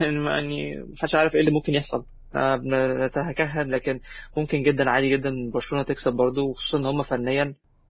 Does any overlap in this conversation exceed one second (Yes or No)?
No